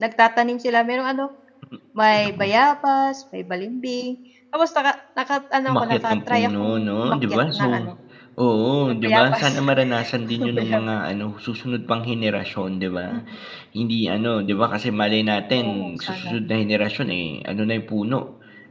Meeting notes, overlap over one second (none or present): present